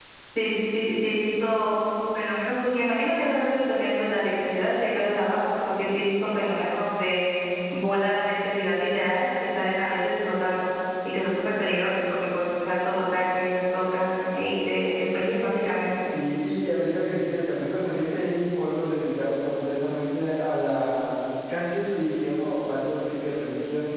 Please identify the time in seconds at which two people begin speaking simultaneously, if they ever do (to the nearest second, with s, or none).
none